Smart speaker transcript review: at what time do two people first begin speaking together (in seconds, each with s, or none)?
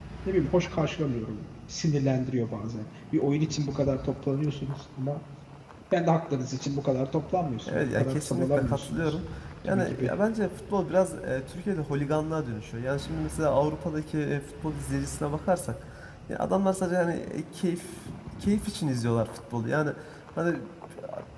7.7 s